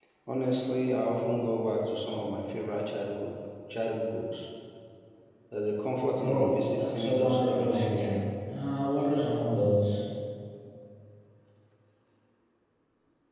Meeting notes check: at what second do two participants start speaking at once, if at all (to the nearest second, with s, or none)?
6 s